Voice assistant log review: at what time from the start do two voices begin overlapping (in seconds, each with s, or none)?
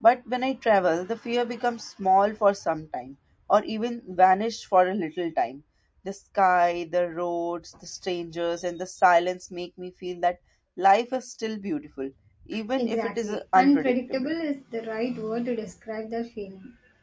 12.8 s